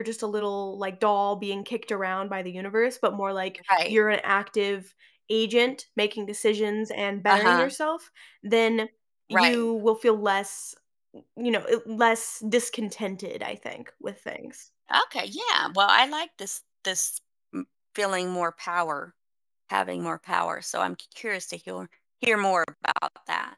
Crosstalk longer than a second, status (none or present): none